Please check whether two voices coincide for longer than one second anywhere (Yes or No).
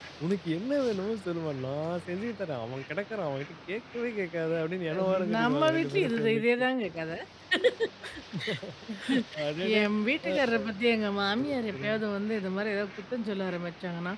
Yes